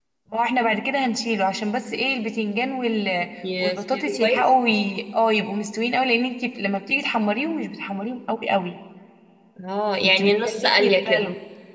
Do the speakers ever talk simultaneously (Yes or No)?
Yes